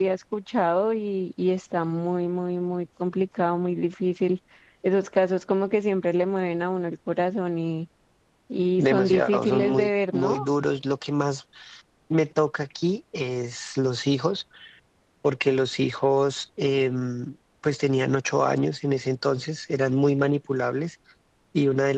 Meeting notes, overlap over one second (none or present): present